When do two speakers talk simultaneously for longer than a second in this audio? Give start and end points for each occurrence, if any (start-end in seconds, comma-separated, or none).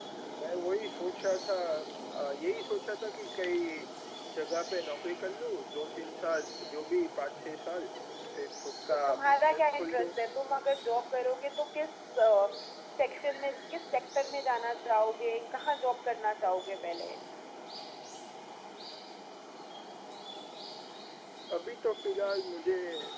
8.9-10.1